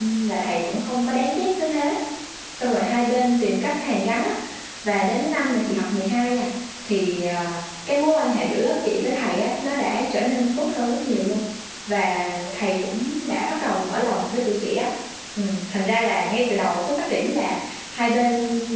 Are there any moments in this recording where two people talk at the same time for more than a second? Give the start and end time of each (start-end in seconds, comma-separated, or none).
none